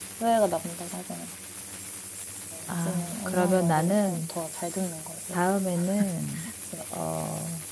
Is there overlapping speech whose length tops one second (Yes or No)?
Yes